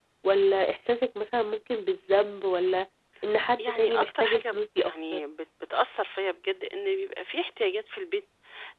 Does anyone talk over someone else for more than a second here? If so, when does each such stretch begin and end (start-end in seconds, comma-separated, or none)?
3.6-5.2